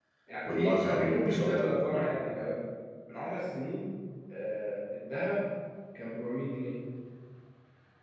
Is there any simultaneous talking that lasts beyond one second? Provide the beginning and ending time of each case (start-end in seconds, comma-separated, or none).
0.5-2.2